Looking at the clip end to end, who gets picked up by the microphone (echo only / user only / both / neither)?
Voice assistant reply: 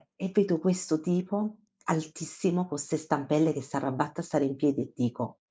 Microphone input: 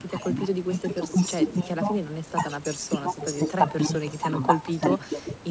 both